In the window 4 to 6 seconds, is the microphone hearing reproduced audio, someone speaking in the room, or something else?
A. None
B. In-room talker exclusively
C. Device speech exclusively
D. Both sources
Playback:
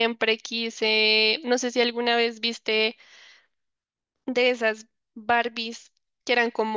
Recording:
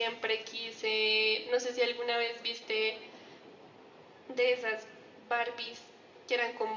C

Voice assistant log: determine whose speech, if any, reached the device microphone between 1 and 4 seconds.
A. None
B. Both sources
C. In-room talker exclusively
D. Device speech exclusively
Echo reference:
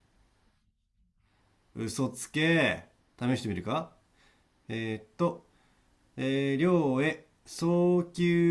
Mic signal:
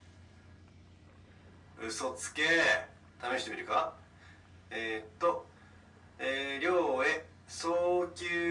D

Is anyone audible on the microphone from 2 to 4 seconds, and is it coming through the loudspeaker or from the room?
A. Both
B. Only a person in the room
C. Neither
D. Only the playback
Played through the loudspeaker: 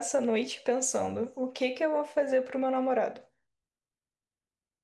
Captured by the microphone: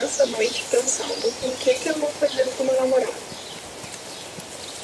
D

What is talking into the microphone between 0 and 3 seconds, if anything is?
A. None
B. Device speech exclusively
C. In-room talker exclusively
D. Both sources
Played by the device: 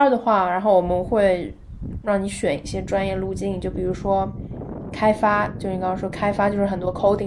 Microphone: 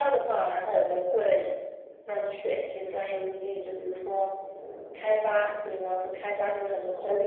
B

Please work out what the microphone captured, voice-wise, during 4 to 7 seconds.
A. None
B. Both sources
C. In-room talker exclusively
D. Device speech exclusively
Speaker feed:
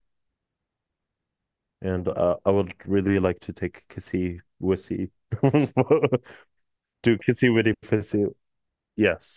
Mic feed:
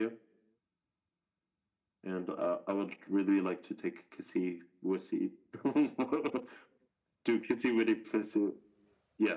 D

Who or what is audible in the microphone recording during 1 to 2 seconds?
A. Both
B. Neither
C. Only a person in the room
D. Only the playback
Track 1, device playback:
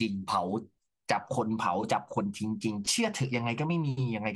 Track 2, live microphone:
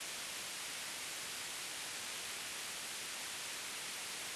B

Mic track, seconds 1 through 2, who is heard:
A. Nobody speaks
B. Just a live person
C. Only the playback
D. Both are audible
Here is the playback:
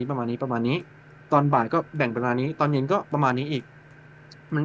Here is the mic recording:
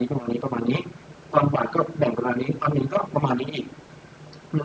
C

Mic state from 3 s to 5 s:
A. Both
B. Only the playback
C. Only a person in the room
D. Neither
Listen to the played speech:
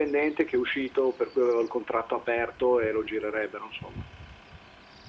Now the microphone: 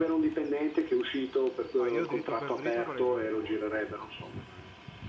A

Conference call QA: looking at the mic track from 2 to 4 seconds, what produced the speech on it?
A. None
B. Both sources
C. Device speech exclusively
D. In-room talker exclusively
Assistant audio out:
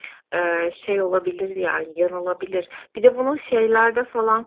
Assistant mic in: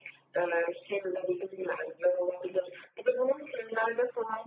C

